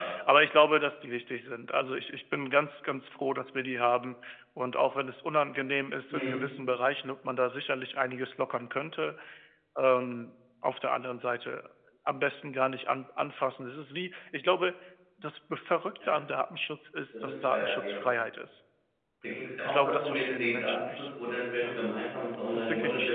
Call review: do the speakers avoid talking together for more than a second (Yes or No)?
No